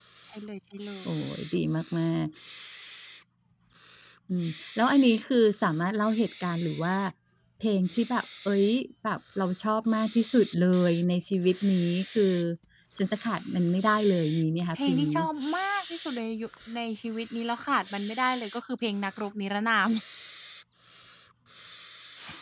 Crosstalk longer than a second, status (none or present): none